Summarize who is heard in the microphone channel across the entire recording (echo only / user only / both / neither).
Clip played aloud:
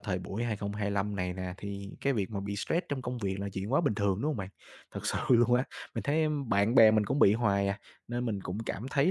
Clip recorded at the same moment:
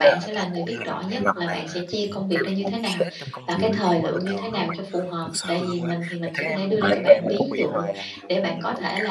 both